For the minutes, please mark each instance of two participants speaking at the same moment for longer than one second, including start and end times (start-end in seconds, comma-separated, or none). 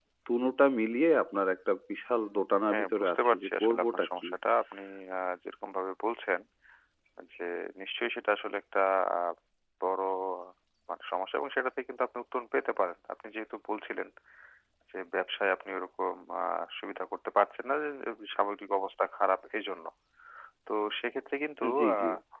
2.7-4.3